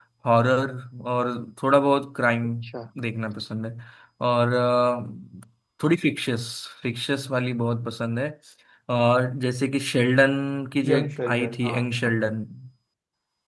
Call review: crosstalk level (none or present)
present